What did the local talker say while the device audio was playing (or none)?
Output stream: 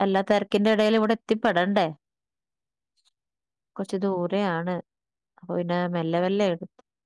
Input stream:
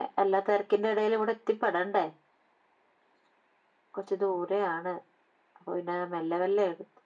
none